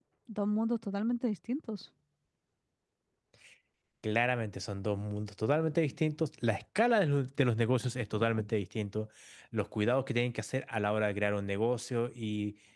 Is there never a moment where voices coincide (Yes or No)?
Yes